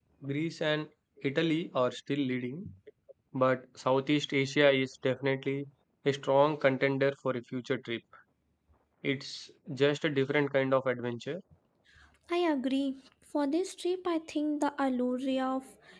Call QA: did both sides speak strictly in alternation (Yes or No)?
Yes